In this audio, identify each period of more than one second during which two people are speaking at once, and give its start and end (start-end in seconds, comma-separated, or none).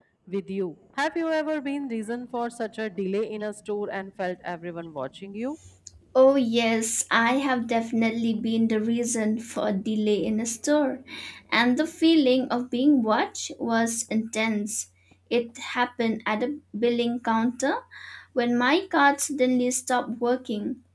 none